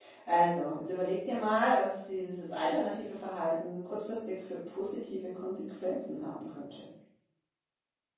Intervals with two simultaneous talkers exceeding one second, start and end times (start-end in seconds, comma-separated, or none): none